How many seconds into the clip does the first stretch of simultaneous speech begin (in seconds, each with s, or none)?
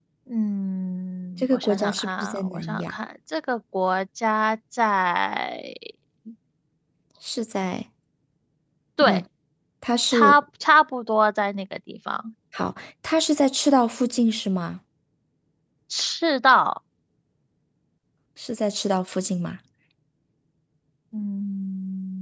1.4 s